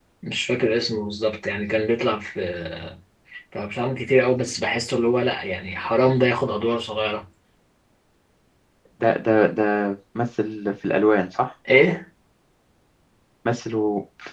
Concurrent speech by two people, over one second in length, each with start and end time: none

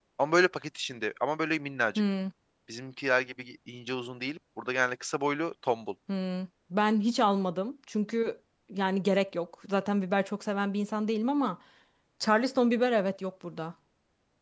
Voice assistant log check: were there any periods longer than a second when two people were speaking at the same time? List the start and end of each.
none

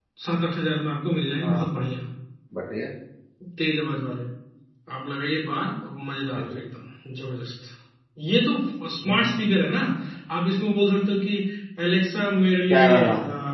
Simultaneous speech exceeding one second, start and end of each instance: none

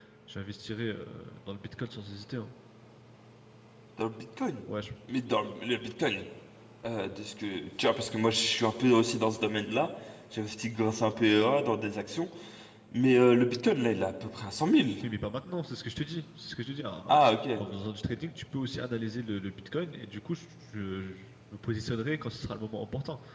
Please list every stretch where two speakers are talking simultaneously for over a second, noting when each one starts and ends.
none

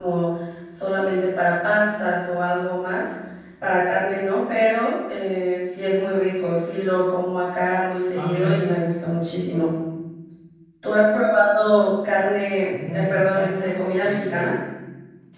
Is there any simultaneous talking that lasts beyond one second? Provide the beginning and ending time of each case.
12.6-14.5

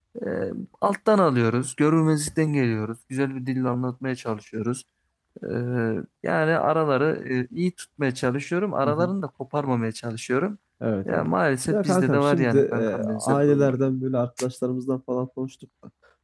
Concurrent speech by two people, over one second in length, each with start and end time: 11.7-13.7

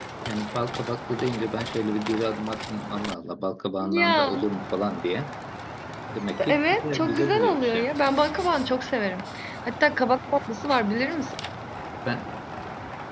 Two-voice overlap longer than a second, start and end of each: 6.5-7.9

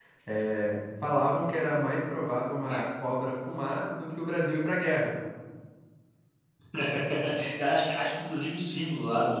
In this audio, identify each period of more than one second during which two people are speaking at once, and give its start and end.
none

